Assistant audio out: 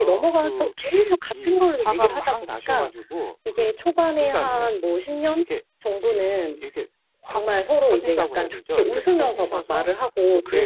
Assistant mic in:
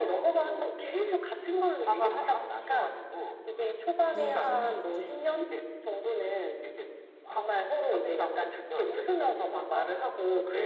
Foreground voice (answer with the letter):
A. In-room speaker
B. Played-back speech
B